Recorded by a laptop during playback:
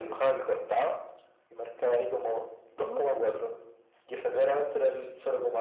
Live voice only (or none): Pero